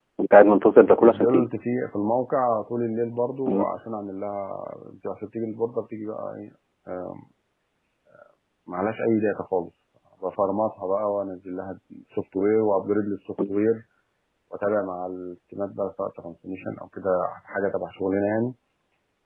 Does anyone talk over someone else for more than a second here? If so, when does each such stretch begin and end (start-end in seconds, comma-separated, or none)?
none